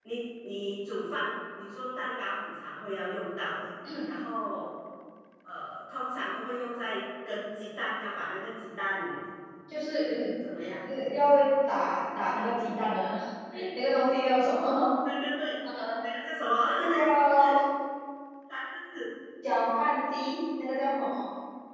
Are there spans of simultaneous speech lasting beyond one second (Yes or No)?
No